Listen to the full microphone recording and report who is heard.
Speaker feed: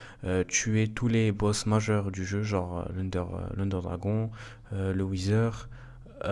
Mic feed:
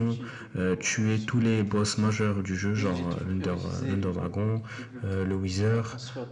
both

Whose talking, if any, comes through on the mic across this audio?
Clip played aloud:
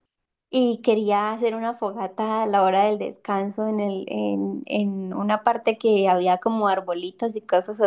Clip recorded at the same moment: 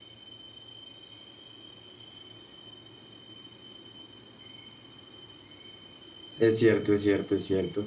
user only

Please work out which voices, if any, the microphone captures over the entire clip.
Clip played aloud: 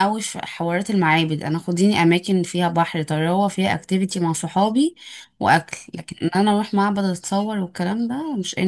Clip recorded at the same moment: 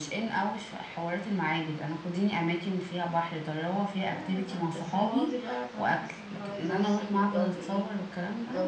both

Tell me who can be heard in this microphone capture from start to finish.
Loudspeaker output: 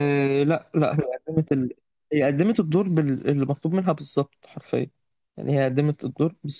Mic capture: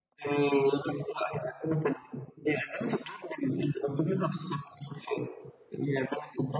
echo only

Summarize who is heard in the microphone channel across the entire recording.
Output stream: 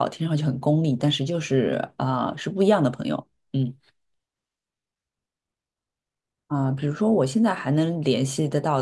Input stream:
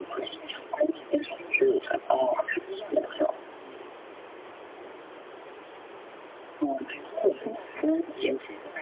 echo only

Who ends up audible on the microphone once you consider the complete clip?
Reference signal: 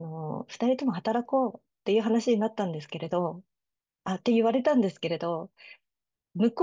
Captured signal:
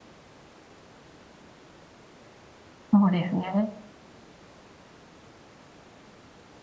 user only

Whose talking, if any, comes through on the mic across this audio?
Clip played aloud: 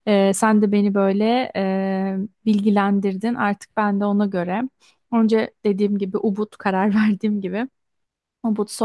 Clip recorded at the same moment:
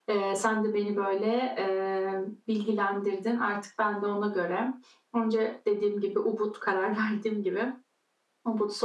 echo only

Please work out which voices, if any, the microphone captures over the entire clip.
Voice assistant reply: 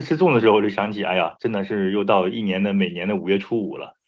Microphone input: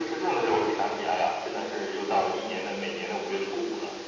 echo only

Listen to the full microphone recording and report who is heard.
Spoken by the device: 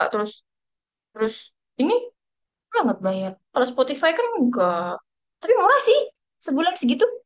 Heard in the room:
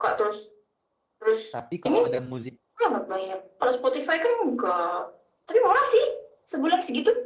both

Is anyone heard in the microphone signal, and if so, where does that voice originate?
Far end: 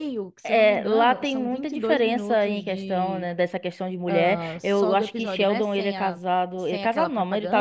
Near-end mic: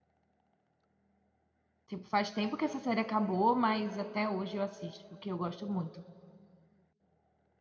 user only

